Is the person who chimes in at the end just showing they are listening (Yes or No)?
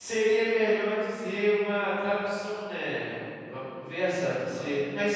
Yes